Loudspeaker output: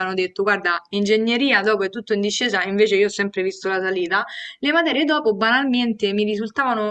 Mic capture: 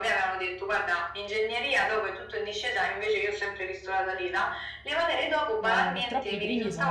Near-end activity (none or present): present